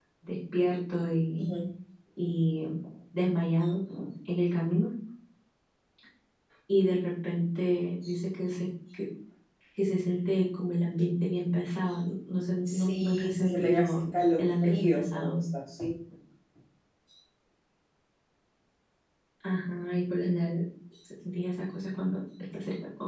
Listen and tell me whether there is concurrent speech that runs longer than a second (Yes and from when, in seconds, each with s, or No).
Yes, from 12.6 s